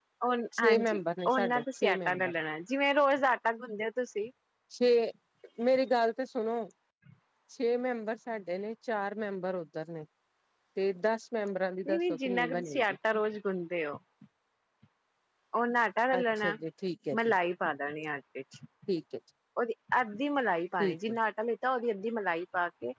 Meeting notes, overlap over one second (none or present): present